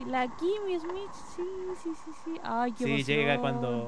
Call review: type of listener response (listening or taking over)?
taking over